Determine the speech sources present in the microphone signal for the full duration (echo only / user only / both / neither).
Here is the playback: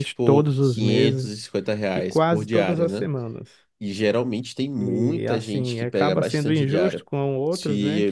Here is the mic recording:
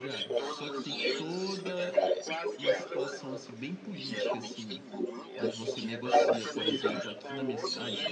both